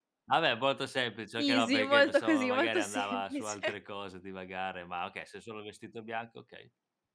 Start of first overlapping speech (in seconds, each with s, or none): 1.4 s